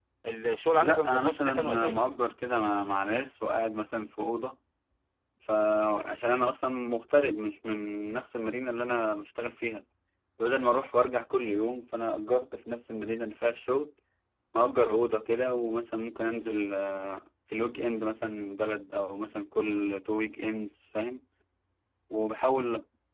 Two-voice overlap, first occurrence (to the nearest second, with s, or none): 1 s